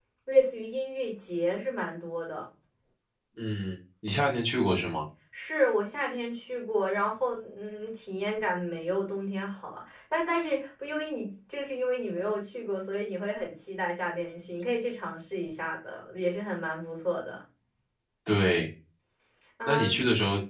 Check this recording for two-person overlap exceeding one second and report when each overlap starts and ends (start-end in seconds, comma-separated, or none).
none